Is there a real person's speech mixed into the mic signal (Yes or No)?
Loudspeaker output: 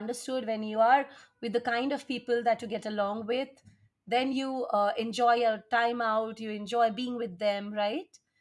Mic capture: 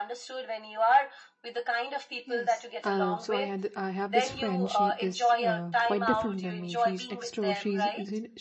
Yes